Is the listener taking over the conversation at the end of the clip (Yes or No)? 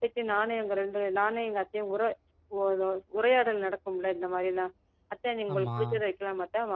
No